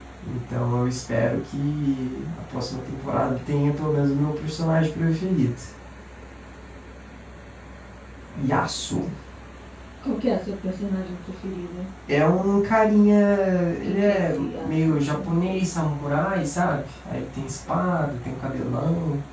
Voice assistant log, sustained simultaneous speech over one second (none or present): present